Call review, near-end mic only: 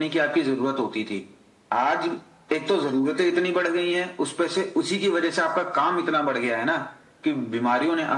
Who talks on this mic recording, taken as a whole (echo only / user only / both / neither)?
echo only